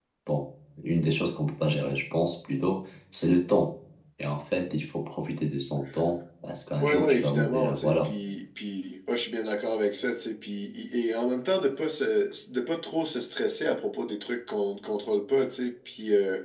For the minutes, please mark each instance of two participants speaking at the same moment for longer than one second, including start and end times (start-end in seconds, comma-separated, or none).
6.8-8.1